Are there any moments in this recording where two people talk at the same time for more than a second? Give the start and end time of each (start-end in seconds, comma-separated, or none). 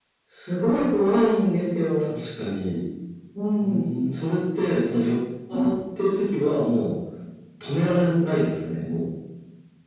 none